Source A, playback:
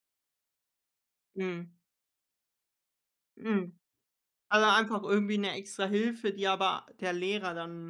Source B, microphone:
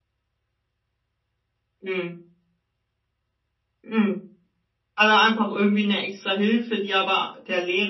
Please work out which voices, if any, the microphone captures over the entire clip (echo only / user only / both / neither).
echo only